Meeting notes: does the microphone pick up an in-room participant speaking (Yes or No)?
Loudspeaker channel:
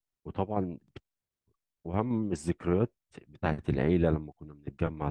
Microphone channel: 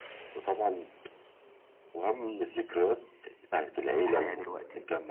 Yes